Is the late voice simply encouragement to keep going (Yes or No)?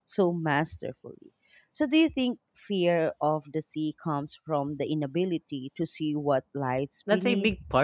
No